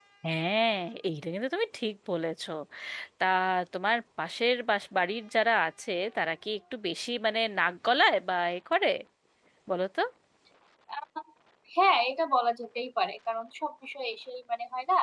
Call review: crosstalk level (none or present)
none